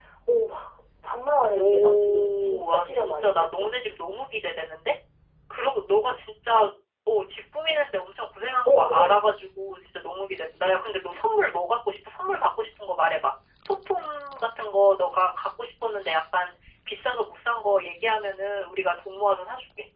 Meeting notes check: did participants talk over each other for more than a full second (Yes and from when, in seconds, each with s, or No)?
Yes, from 1.5 s